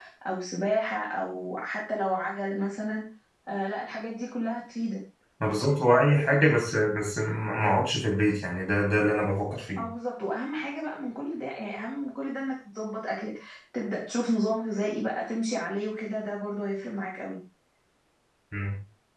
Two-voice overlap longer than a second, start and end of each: none

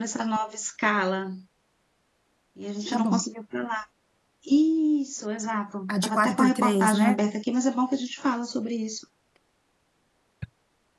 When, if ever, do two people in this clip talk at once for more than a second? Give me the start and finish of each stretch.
5.9-7.2

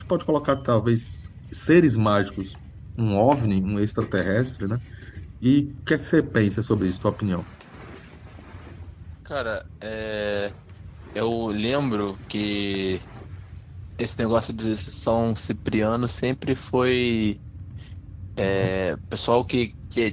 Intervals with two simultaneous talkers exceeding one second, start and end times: none

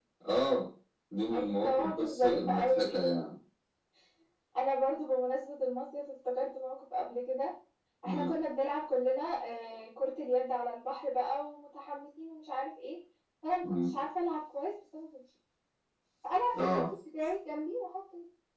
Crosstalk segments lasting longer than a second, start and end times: 1.3-2.9

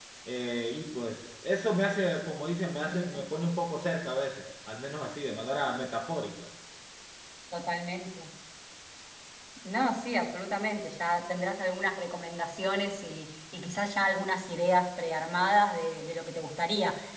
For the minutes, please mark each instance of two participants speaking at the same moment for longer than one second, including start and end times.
none

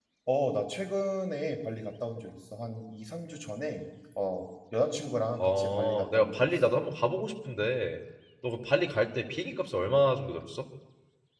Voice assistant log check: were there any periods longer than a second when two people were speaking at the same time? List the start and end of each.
5.4-6.7

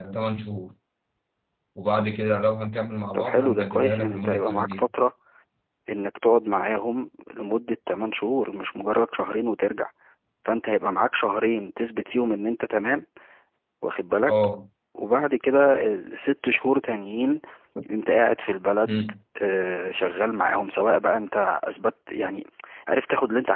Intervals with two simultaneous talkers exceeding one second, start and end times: 3.1-4.9

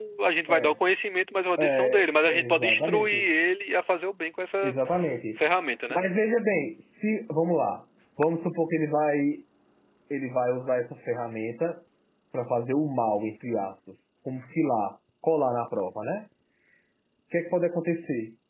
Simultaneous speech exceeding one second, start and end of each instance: 1.6-3.2

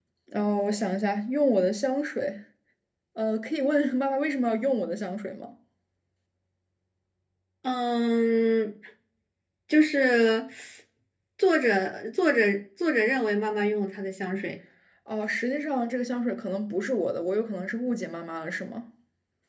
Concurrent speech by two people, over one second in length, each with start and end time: none

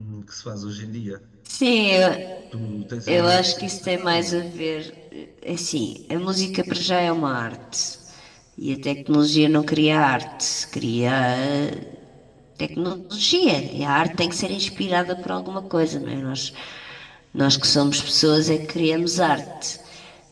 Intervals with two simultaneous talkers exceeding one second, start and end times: 3.1-4.5

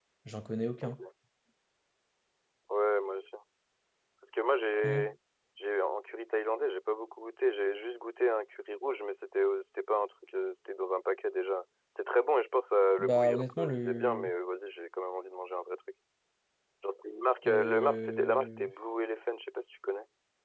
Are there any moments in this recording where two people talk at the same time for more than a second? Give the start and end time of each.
13.0-14.3, 17.5-18.7

